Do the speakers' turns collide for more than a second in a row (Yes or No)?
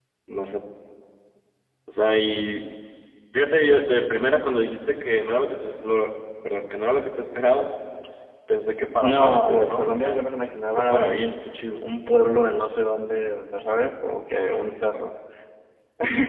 Yes